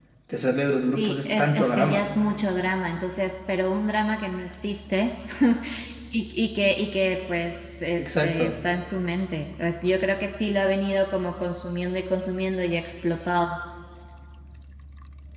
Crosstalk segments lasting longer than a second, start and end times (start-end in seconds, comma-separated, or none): 0.8-2.1